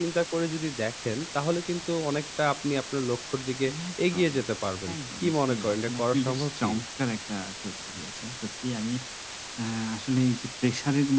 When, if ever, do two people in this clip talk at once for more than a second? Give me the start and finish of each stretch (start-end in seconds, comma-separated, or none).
5.0-6.7